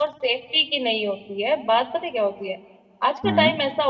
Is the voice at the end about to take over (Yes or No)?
No